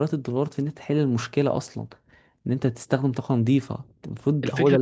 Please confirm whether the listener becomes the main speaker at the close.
Yes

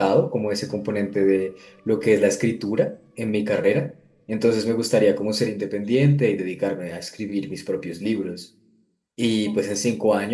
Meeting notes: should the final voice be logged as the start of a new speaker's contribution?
No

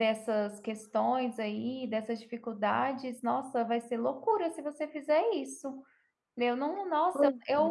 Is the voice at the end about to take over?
No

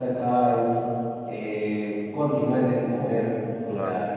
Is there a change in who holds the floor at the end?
No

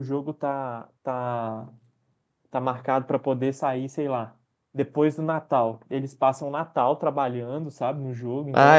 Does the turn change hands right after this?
Yes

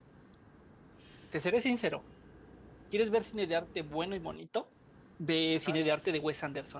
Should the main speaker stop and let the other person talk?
No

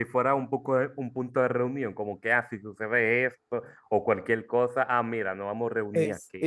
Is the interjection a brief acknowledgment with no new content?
No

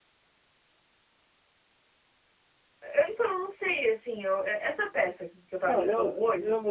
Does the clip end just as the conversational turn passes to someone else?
Yes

